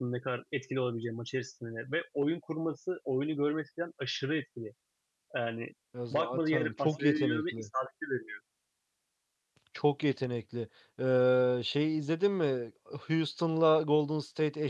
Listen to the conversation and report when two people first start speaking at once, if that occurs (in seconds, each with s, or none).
6.1 s